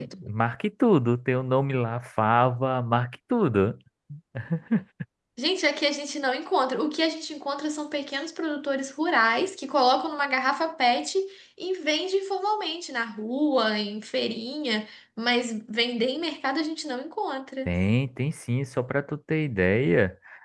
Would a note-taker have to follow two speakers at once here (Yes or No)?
No